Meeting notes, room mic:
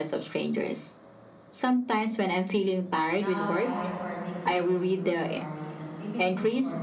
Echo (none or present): present